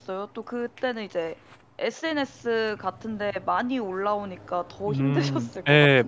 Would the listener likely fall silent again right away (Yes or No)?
No